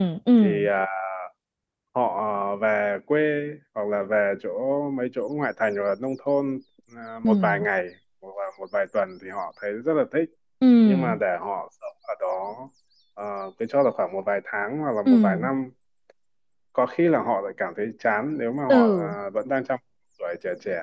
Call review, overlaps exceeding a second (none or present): none